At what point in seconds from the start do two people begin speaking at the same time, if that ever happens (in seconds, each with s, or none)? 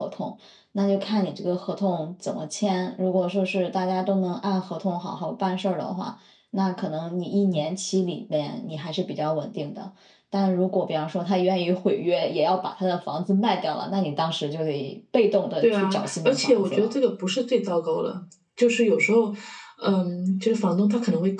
15.6 s